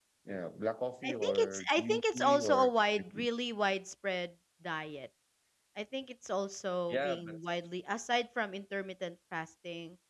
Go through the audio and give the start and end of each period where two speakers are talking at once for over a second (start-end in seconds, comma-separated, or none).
1.0-2.7